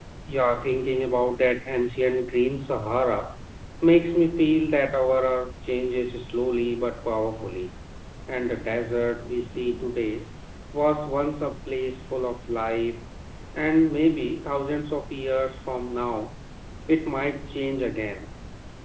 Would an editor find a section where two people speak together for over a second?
No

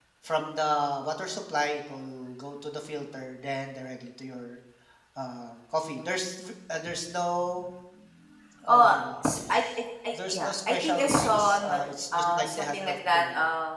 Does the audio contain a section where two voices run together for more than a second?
Yes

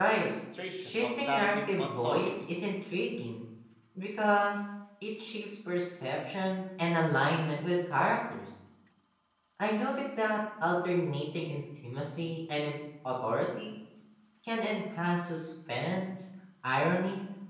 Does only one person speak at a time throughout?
No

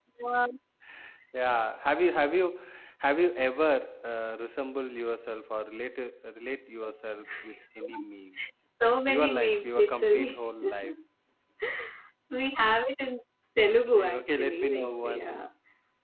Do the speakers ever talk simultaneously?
Yes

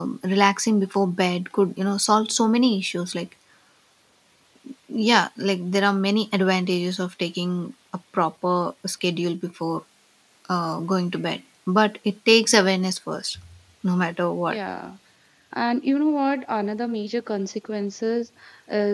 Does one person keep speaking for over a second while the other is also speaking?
No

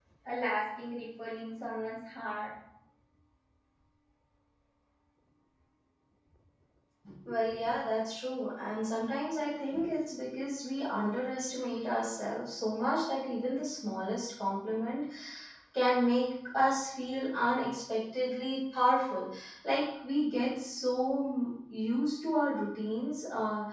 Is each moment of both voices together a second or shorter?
Yes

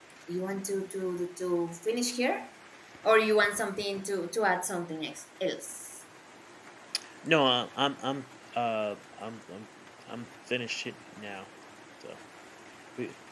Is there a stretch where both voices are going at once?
No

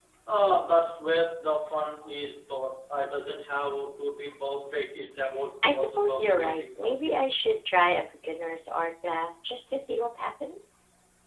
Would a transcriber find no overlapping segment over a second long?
No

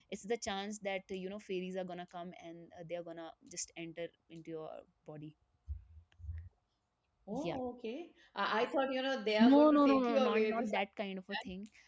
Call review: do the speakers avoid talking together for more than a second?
No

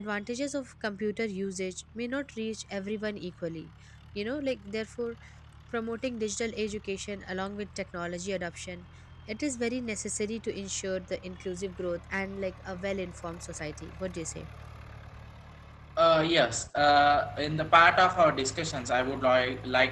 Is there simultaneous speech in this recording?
No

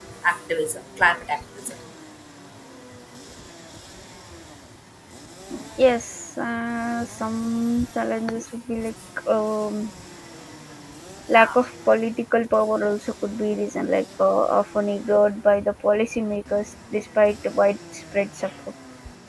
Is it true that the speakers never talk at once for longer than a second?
Yes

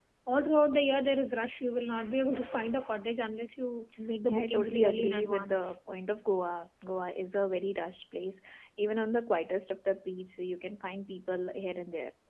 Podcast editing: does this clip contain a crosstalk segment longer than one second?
Yes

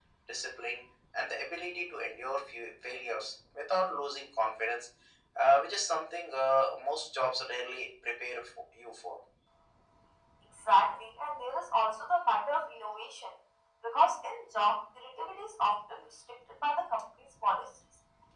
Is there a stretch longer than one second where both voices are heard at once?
No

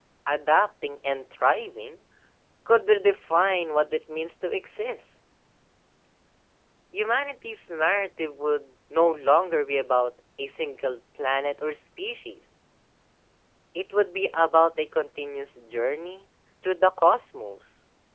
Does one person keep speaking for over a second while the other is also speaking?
No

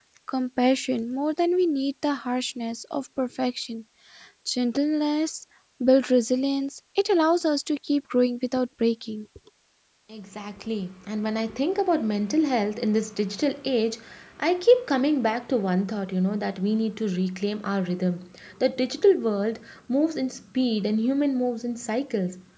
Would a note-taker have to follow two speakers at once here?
No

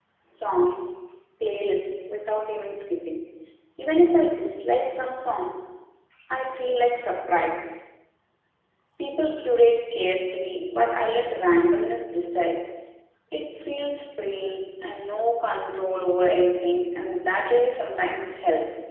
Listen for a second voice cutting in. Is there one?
No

